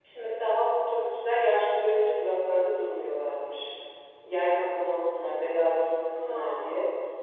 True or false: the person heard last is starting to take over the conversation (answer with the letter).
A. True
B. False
B